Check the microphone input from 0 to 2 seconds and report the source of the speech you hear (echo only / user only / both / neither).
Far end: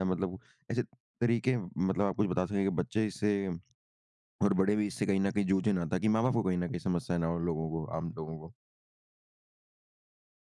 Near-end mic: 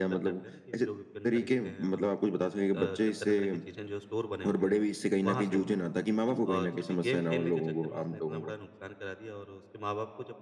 both